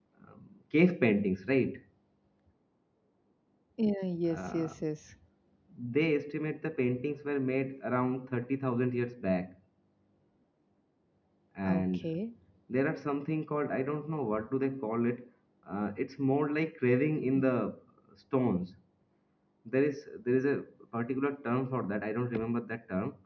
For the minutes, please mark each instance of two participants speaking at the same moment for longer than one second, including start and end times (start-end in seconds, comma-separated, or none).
none